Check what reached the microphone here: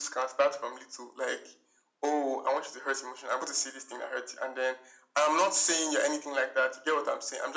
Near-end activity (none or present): none